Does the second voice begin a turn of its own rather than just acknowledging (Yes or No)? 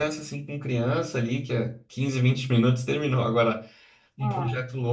No